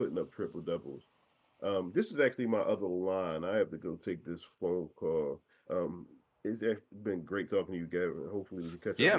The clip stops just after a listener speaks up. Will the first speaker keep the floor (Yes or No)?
No